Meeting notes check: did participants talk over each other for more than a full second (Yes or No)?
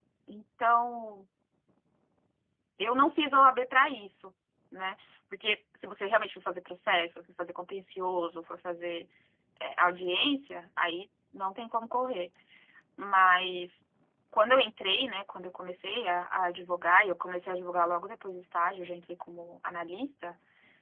No